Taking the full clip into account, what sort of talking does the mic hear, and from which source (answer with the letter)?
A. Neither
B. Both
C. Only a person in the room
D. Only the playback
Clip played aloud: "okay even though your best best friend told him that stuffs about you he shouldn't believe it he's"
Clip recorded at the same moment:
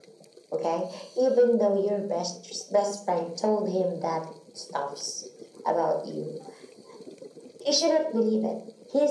D